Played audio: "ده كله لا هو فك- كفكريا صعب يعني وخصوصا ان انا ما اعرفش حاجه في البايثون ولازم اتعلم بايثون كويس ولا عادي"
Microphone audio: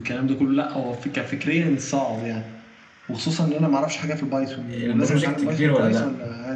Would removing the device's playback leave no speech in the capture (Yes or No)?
No